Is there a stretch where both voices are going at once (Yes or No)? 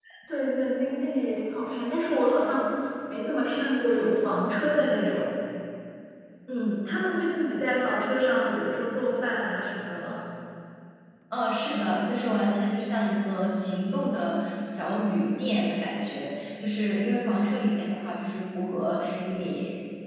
No